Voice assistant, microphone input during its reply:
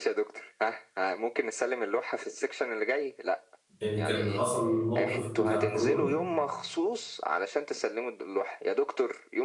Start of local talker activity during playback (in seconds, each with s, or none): 3.8 s